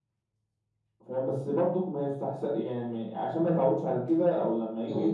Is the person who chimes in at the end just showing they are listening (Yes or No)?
Yes